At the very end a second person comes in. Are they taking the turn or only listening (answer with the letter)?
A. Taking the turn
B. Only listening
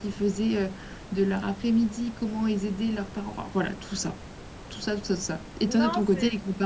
B